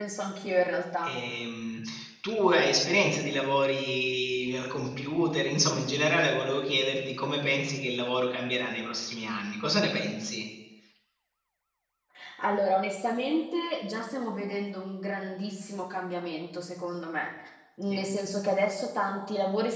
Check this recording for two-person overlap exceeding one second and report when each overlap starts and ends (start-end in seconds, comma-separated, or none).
none